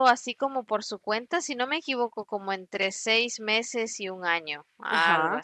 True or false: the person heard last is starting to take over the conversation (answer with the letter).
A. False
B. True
B